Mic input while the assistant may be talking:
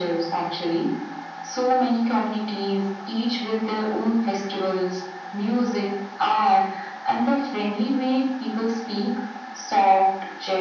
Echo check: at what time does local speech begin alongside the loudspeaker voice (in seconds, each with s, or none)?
none